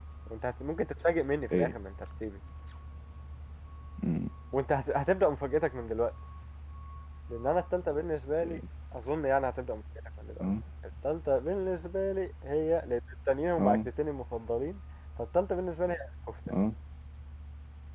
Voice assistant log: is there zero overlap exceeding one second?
Yes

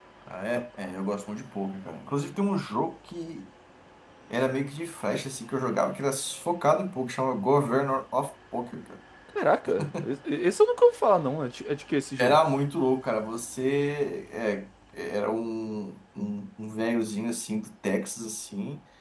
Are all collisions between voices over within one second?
Yes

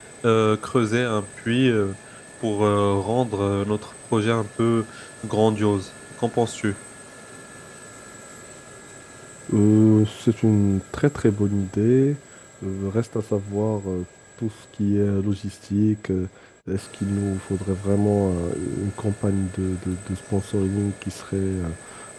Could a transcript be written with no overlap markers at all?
Yes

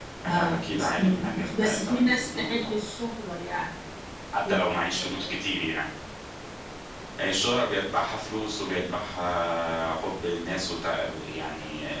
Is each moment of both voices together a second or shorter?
No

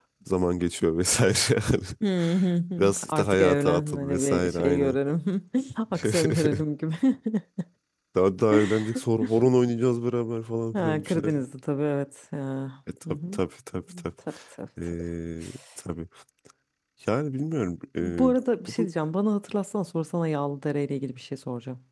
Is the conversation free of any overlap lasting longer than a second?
No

